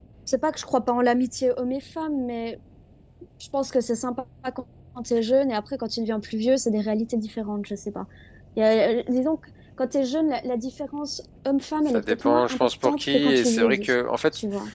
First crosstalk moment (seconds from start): 12 s

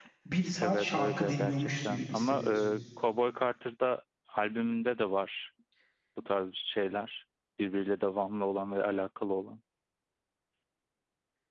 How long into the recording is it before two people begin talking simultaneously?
1 s

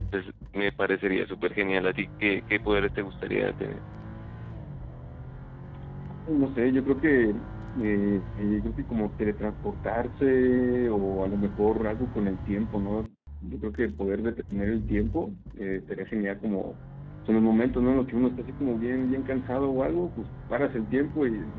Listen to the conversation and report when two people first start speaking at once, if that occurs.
none

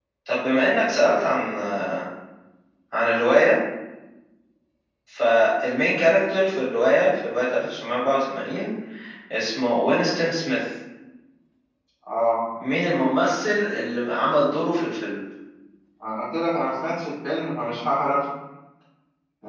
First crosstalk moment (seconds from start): none

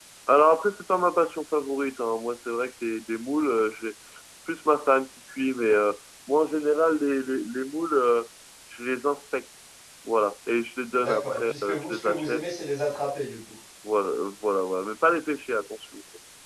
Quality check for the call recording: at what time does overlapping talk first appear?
11 s

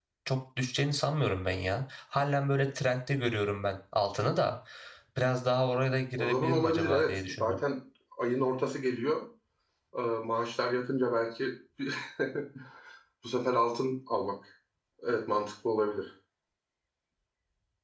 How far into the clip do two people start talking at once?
6 s

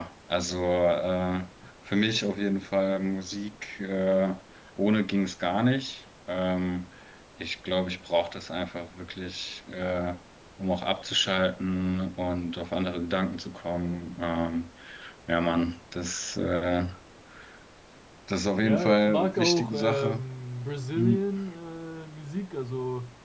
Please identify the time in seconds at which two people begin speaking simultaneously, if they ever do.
19 s

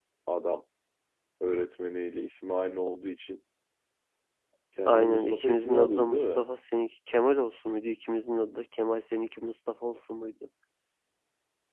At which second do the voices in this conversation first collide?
5 s

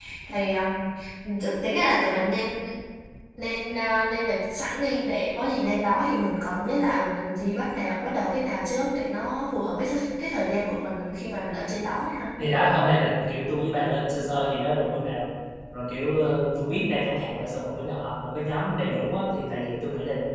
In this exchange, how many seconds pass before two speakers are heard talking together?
none

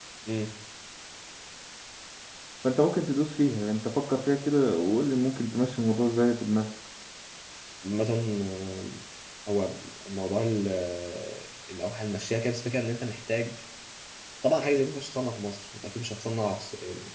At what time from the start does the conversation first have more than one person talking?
none

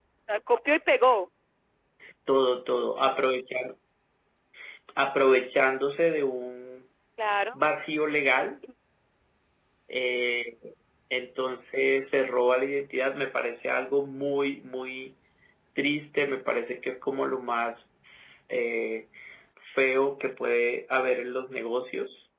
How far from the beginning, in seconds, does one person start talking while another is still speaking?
none

